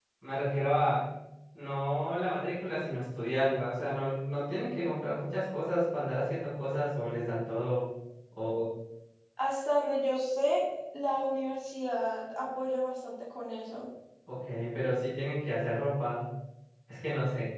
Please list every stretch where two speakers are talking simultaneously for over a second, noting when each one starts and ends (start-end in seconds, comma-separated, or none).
none